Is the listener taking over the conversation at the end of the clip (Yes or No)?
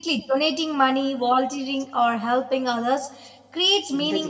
No